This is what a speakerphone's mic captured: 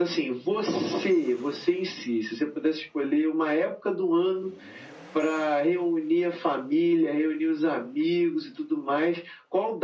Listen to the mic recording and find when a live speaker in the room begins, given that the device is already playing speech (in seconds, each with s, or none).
none